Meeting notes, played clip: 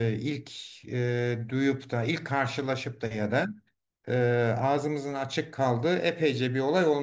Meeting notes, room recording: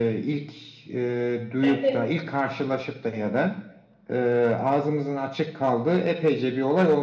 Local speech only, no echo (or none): evet